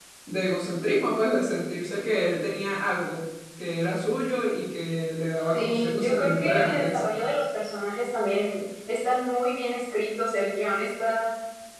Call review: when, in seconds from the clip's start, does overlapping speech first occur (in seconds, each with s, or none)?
5.5 s